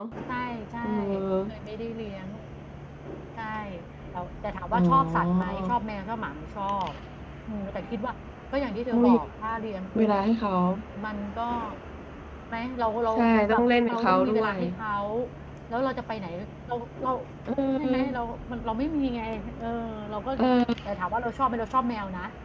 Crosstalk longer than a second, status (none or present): present